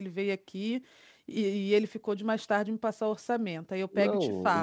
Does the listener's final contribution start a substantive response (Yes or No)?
Yes